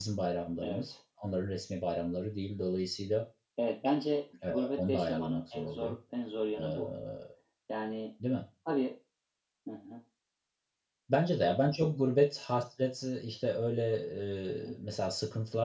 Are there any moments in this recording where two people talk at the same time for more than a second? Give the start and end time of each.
4.5-6.0

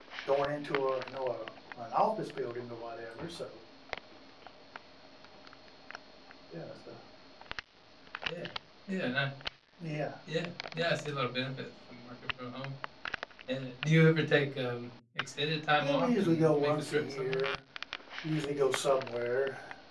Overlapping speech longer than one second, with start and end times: 15.8-17.4

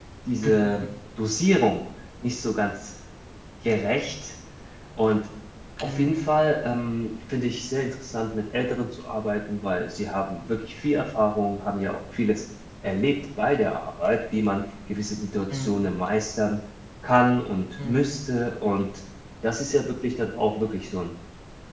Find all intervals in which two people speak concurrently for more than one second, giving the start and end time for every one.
none

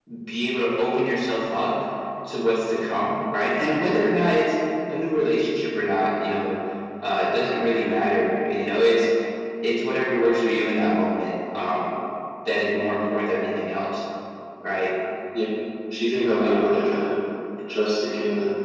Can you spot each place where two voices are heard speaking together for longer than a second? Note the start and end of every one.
none

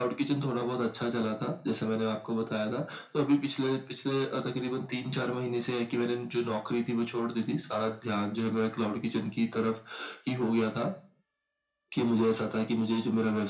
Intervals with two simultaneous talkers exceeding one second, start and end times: none

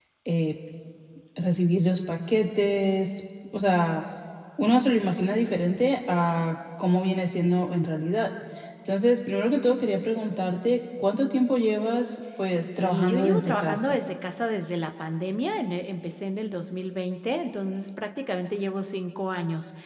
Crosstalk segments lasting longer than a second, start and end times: 12.8-14.0

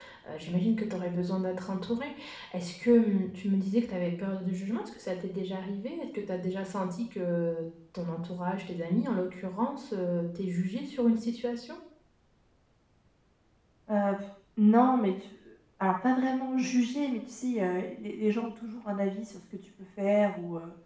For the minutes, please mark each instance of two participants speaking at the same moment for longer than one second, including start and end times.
none

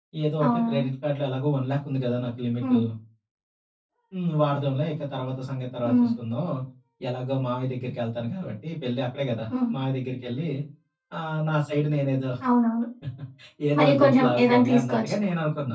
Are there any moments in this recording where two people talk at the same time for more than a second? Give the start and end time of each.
13.8-15.2

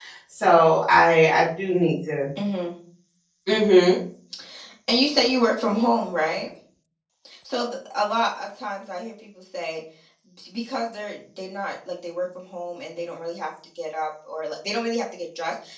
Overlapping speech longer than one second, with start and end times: none

